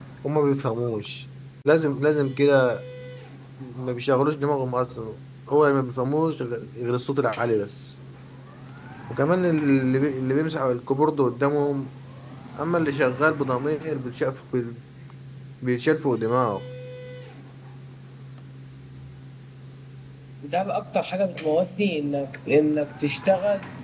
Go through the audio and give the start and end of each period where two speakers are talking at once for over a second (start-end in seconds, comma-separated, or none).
none